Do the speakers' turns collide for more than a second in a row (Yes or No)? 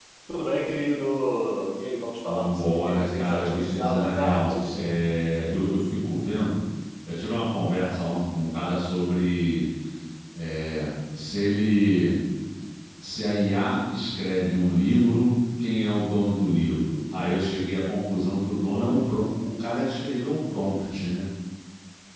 Yes